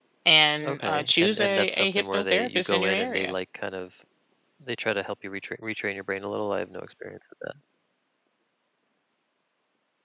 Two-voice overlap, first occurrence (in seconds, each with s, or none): 0.6 s